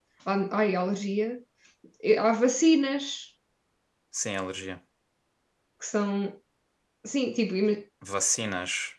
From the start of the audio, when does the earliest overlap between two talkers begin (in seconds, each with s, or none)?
none